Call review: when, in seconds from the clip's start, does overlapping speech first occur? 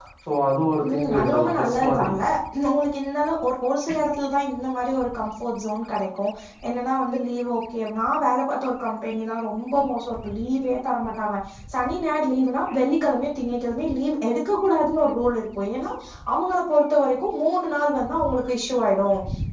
0.9 s

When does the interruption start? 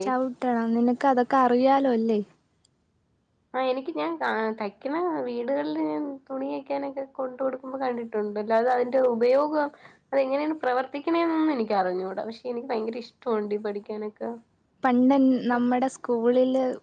none

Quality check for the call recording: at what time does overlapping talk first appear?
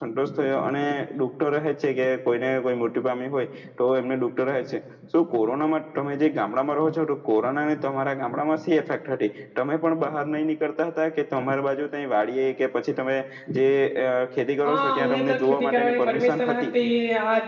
14.6 s

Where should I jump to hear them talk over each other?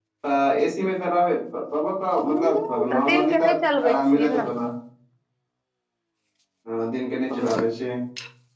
2.2 s

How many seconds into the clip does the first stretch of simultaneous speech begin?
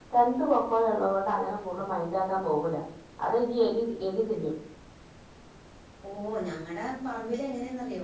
none

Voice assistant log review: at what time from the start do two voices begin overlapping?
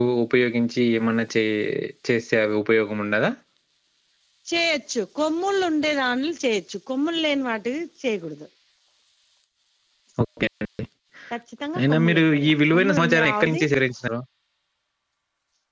11.8 s

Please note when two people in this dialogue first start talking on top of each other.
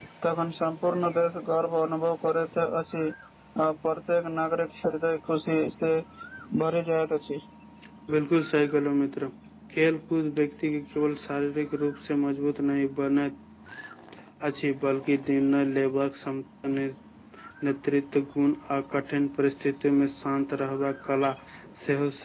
none

